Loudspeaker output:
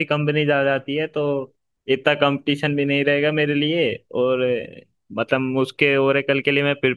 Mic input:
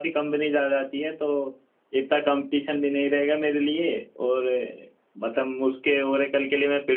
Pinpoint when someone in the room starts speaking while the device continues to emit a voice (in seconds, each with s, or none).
none